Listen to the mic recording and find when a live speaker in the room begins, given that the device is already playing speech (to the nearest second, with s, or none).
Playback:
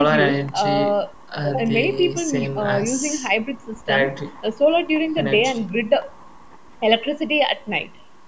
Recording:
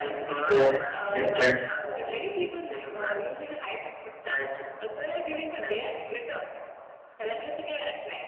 0 s